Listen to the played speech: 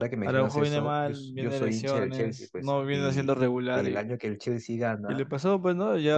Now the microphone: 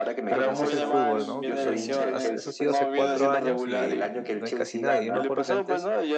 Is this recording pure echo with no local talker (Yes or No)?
No